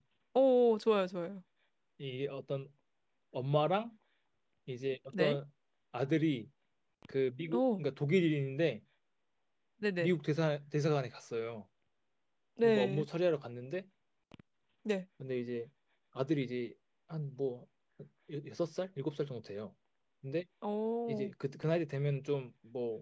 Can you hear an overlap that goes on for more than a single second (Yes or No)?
No